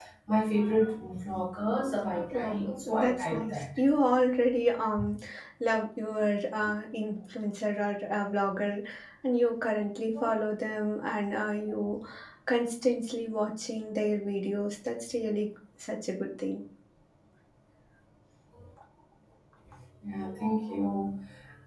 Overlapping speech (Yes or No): Yes